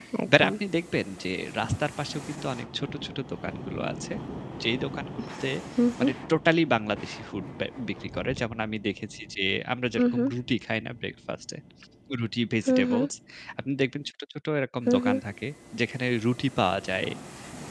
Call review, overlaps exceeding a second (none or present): none